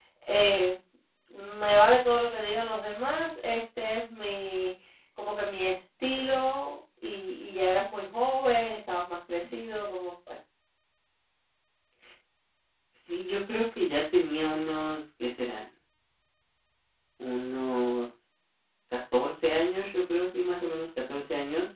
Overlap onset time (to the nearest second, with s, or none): none